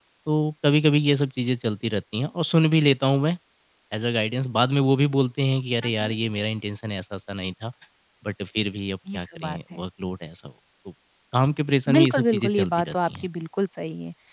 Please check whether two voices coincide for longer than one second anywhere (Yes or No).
Yes